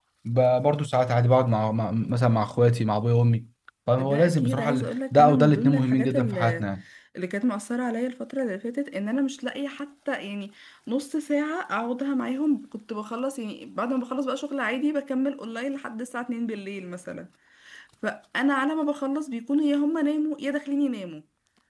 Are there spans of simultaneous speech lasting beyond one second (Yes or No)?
Yes